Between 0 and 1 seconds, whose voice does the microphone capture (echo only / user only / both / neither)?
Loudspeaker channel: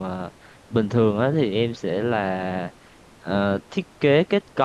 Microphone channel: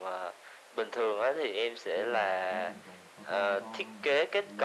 echo only